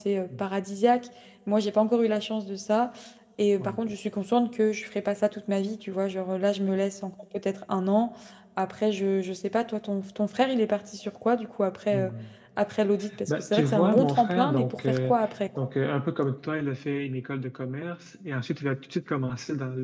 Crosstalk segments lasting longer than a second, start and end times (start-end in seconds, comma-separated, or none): 13.3-15.1